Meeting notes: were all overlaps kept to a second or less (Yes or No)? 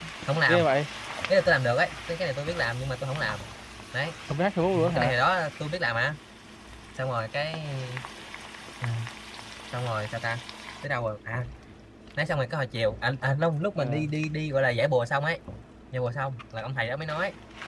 Yes